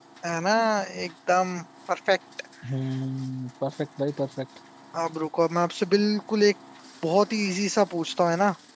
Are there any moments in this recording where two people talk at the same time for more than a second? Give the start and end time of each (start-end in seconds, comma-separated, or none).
none